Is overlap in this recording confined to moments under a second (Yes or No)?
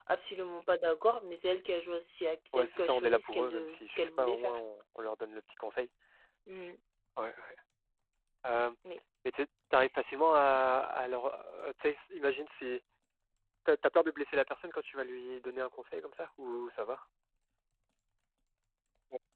No